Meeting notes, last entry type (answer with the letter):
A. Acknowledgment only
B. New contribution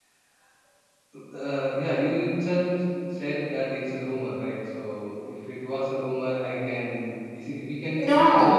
B